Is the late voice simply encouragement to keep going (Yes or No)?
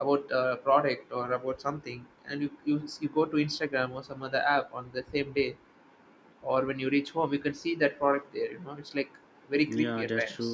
No